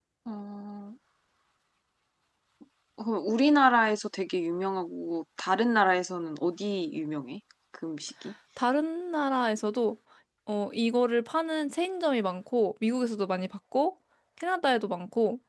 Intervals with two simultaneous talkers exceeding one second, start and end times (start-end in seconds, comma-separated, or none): none